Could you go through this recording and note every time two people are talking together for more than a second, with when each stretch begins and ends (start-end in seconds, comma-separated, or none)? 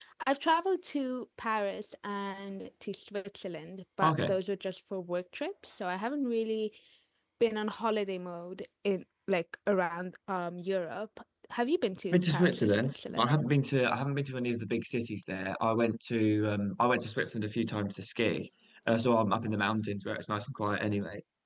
12.1-13.3